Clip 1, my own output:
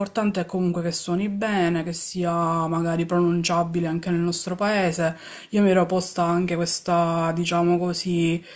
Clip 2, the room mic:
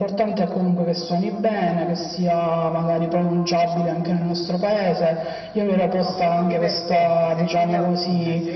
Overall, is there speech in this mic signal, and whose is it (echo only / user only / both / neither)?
both